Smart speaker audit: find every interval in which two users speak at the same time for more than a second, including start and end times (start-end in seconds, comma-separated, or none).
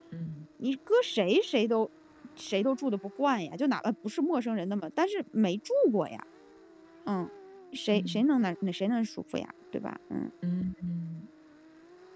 none